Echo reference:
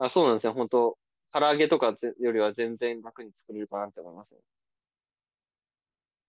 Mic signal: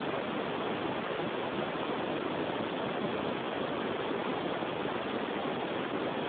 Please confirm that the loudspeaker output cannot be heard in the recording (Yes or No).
Yes